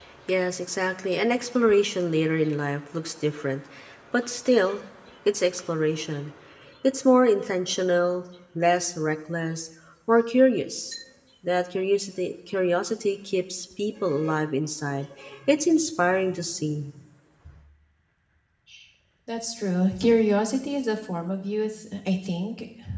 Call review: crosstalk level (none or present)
none